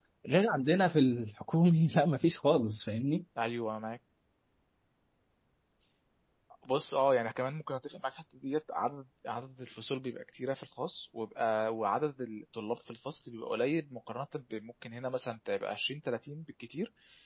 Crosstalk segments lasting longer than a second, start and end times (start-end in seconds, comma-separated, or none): none